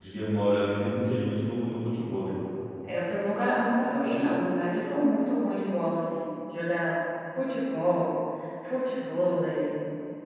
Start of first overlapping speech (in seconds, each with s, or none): none